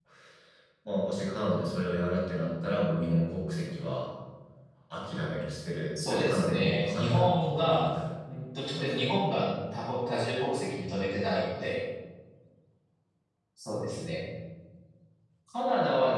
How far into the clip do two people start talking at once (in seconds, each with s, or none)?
6.0 s